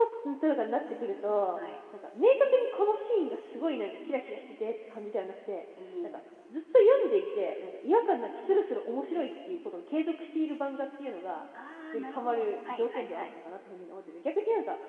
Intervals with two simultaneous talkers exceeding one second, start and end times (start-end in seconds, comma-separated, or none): 11.9-13.2